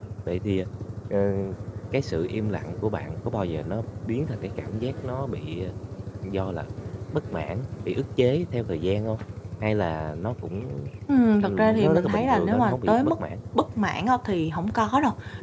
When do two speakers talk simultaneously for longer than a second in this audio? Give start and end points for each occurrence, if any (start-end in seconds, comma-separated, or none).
11.4-13.1